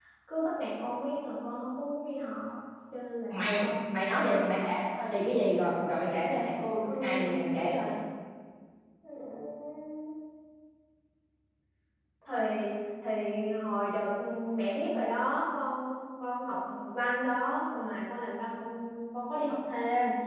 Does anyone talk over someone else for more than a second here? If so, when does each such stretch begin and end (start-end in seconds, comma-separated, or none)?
3.3-4.7